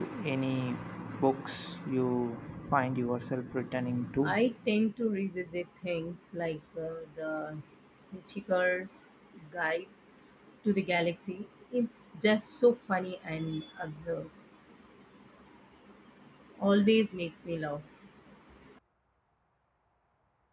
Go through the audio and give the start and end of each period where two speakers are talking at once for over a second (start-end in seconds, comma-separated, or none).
none